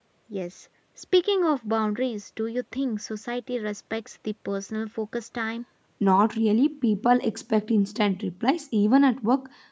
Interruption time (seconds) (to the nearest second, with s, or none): none